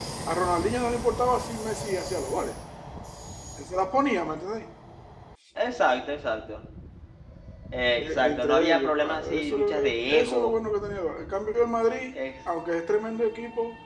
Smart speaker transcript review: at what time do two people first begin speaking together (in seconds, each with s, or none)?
7.8 s